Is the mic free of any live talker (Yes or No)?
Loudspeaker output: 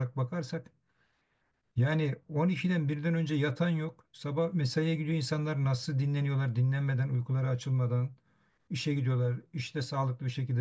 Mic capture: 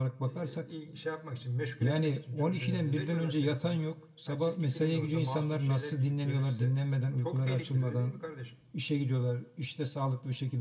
No